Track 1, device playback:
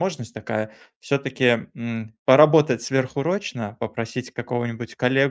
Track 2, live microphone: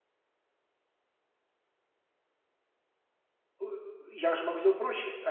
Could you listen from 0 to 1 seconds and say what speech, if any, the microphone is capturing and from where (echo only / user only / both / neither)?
neither